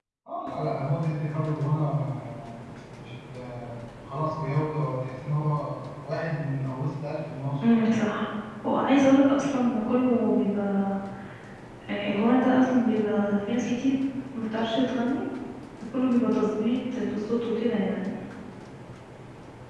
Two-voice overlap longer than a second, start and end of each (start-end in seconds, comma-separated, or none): none